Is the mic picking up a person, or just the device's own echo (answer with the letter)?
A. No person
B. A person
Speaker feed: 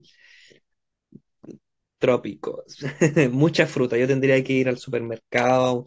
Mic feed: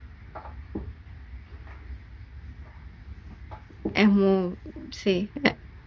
B